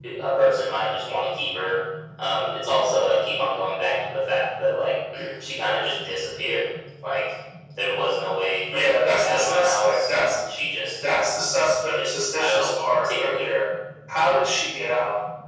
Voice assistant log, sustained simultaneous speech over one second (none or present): present